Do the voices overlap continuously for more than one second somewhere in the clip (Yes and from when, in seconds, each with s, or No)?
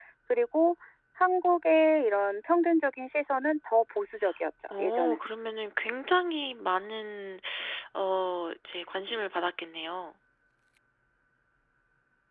No